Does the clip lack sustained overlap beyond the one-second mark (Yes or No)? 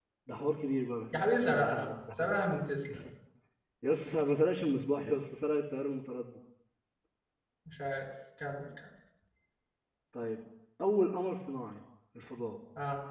No